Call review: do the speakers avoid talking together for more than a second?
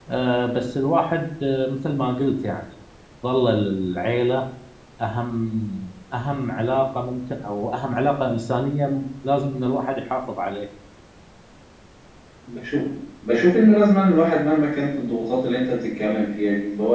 Yes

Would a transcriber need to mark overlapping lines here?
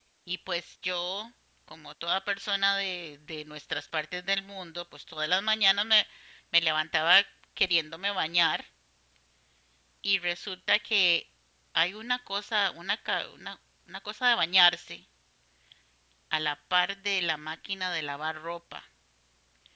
No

